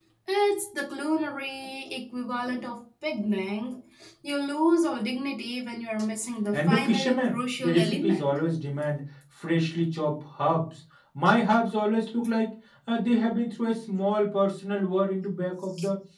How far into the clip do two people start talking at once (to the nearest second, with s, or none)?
7 s